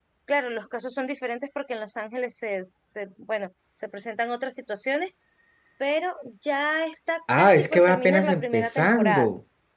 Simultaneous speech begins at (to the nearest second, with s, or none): 7 s